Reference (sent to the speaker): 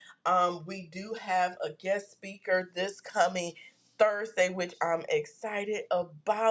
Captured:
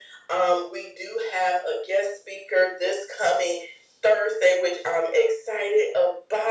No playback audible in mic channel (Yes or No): No